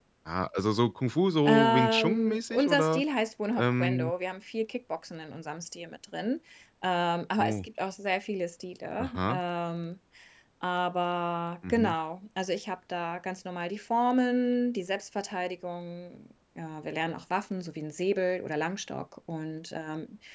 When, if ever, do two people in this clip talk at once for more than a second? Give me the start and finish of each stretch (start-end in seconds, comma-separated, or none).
1.4-3.0